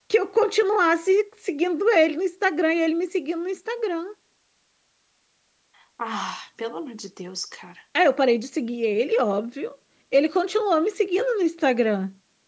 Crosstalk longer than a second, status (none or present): none